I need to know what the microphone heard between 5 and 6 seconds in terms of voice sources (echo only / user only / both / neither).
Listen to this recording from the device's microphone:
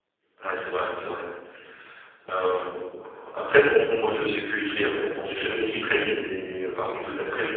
user only